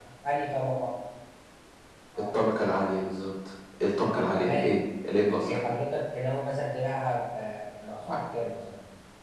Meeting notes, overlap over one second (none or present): none